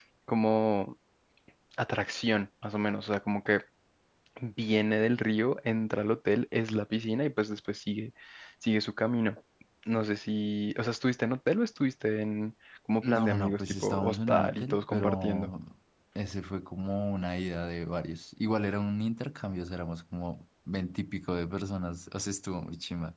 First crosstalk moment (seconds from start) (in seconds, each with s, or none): 13.0 s